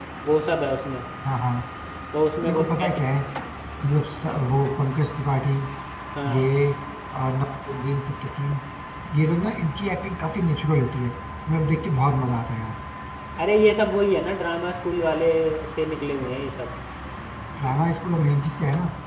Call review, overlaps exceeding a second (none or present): none